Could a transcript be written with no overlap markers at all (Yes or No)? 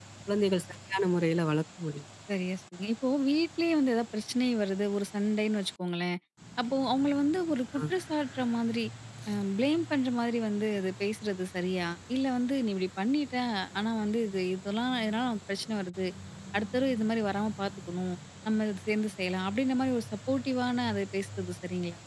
Yes